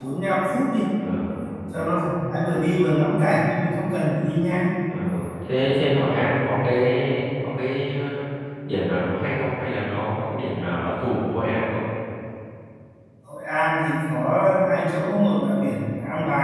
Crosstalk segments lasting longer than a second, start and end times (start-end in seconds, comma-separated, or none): none